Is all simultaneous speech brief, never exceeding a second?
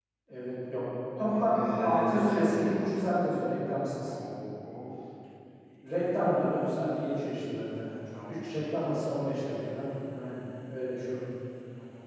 No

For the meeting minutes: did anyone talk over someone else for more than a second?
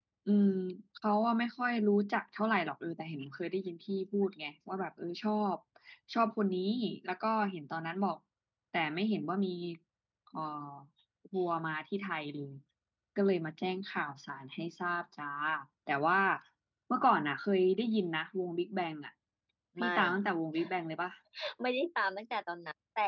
No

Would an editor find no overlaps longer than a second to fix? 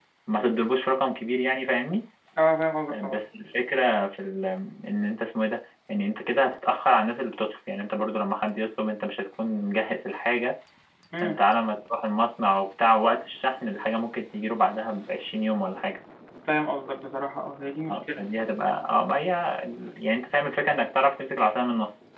Yes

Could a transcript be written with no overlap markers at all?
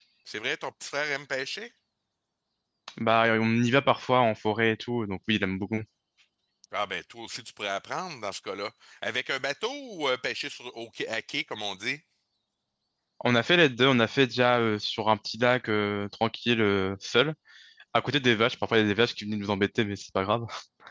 Yes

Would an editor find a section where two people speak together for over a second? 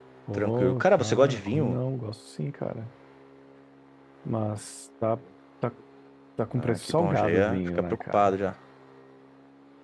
Yes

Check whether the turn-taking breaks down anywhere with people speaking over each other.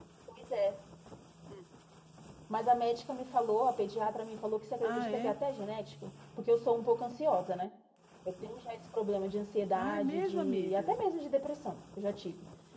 Yes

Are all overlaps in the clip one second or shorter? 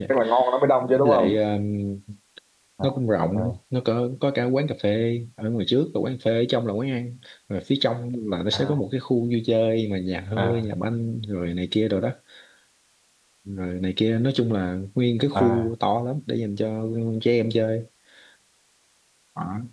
Yes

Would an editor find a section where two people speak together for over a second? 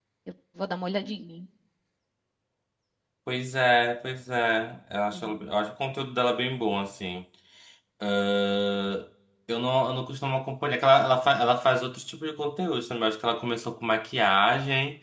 No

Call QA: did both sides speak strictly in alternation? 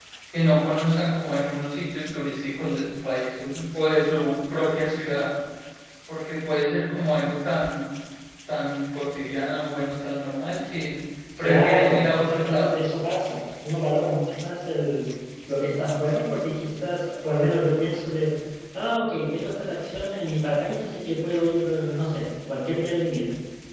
No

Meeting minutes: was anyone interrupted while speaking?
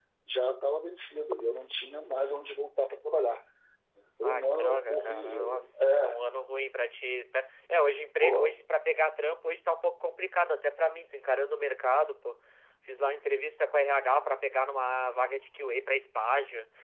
Yes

